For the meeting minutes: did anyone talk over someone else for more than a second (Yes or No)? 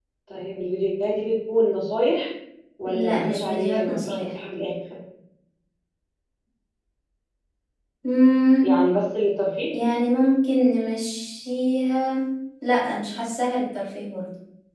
Yes